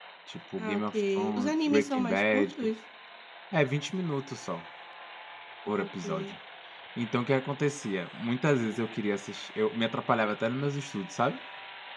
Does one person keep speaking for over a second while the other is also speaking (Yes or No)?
Yes